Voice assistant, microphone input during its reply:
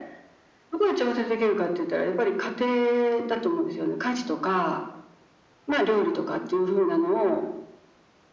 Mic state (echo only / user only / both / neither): echo only